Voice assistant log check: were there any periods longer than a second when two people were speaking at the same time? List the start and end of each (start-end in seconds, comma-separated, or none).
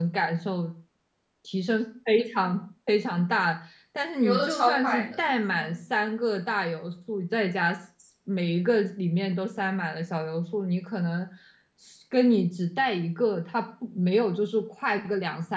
4.2-5.8